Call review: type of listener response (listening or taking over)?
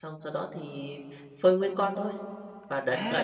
taking over